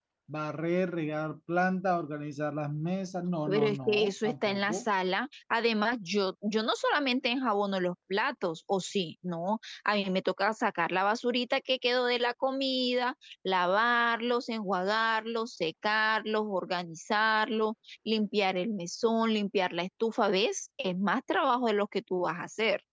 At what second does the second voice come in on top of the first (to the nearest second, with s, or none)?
3 s